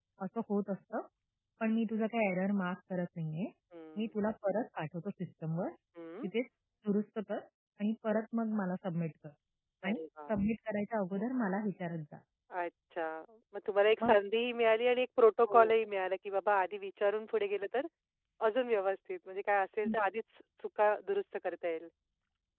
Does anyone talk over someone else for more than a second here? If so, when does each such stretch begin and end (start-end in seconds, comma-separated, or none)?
none